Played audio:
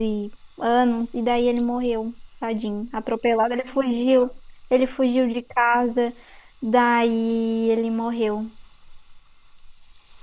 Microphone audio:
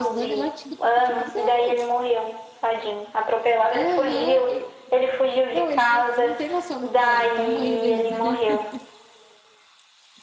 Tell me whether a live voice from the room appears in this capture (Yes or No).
Yes